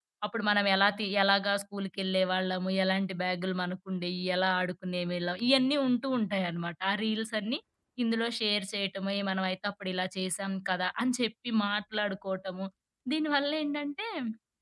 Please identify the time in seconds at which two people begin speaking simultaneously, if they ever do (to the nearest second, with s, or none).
none